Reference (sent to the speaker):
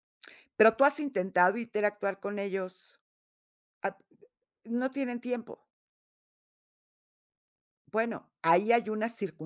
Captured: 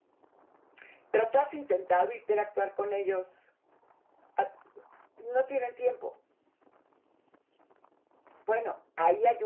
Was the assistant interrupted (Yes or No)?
No